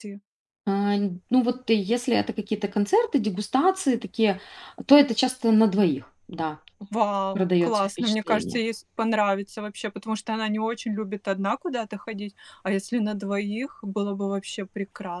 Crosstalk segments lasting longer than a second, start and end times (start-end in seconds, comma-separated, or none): 7.3-8.6